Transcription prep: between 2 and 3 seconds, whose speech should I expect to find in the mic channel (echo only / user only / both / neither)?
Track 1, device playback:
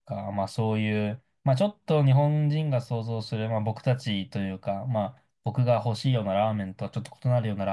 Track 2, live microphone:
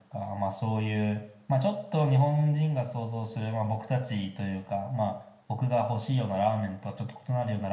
echo only